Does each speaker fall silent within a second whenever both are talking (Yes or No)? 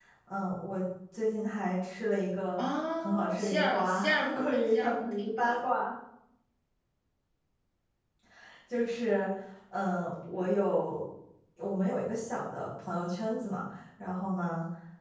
No